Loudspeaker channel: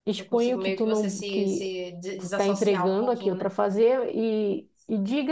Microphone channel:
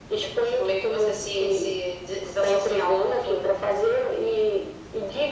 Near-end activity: none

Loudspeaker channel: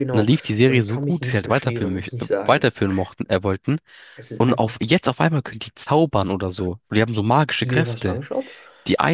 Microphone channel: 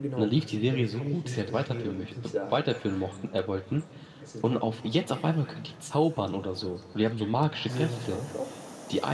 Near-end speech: none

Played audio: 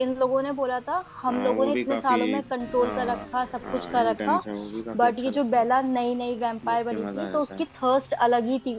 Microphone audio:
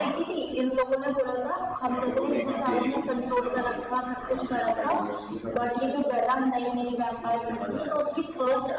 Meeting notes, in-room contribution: none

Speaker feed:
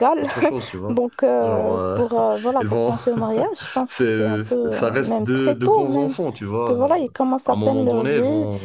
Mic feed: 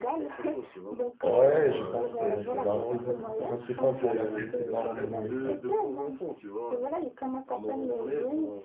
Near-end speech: present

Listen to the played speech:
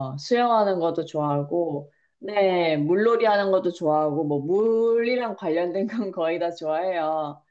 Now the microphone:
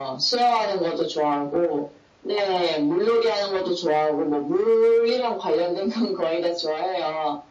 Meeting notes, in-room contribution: none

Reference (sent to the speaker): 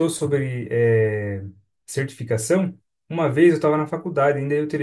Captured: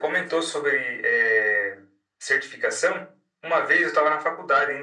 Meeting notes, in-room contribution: none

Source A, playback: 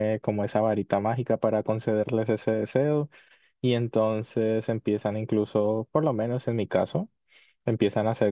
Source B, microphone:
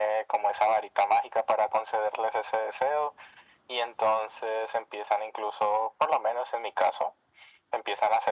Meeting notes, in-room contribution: none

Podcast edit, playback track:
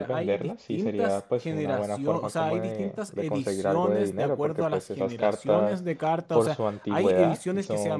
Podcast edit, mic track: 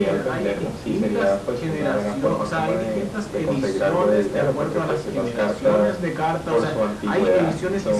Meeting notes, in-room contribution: none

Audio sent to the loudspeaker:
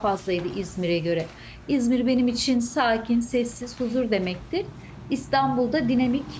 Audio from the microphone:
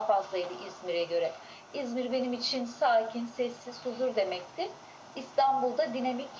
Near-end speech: none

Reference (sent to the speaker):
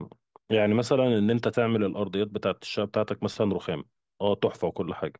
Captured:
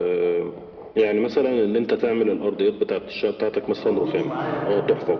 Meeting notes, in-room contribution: present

